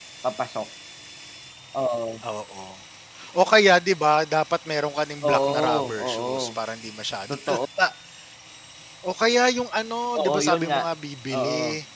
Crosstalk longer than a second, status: present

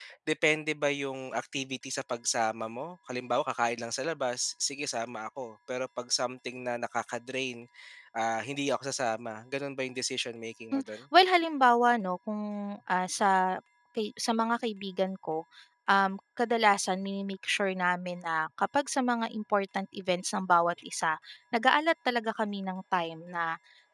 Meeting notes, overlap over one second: none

